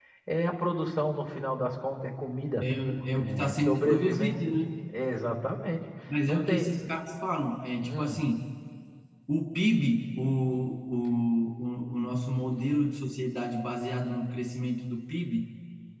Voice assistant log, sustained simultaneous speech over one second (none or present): present